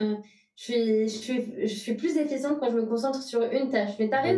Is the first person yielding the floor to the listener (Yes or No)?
Yes